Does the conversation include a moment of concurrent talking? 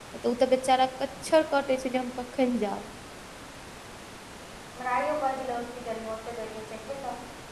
No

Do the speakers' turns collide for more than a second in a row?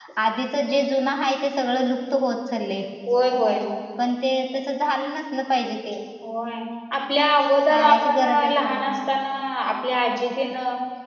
Yes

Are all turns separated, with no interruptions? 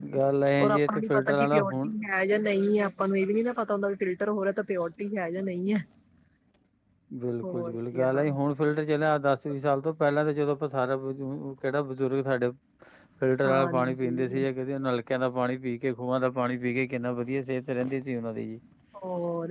No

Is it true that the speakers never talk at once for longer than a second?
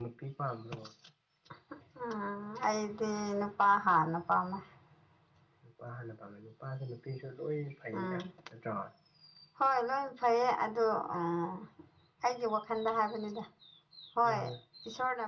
Yes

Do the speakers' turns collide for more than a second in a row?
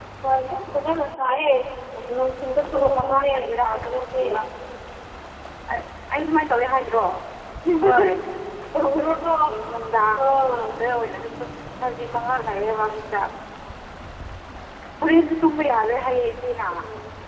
Yes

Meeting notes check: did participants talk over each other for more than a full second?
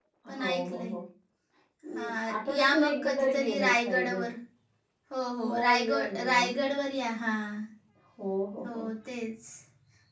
Yes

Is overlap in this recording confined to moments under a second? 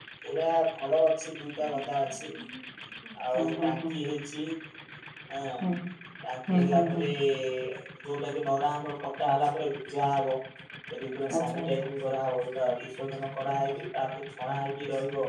Yes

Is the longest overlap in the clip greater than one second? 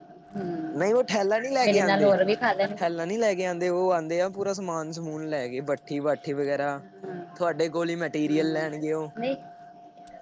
No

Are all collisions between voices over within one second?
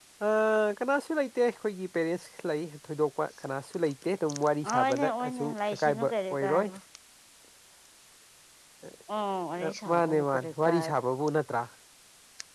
No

